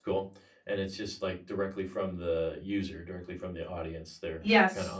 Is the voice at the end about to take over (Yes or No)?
Yes